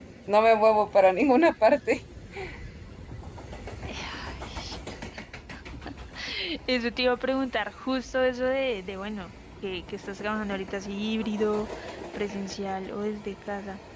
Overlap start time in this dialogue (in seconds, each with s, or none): none